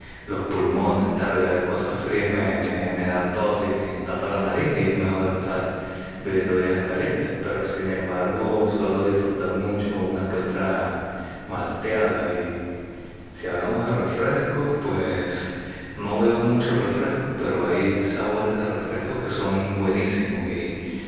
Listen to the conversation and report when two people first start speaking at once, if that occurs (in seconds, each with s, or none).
none